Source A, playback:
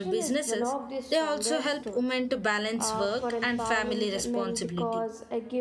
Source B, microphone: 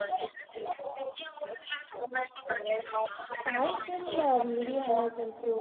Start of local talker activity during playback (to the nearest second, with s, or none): 3 s